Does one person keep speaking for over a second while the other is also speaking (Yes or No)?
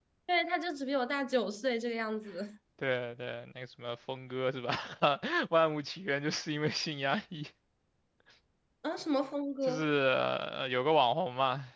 No